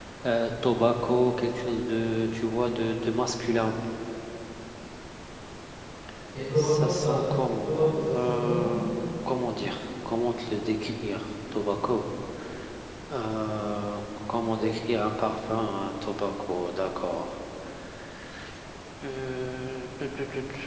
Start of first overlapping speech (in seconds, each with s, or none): 6.6 s